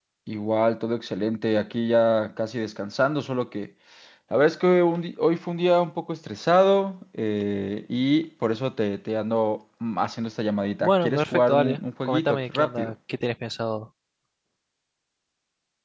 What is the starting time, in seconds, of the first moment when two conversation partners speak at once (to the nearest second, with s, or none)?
11 s